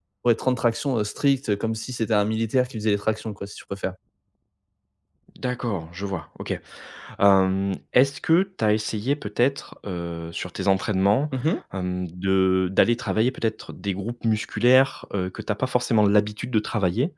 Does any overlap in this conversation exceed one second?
No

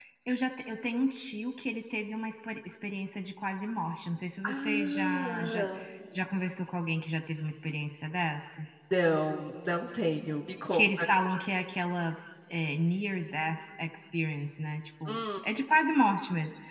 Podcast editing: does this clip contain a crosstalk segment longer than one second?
Yes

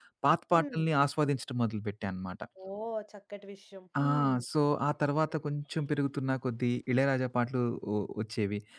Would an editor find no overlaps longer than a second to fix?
Yes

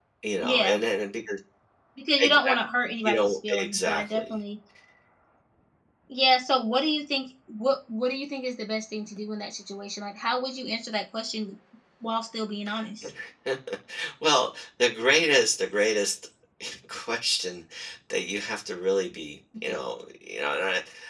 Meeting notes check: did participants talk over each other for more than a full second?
Yes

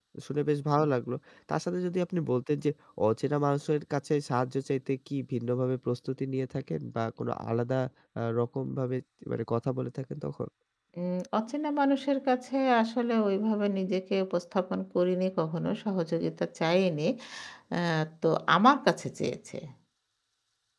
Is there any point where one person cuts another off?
No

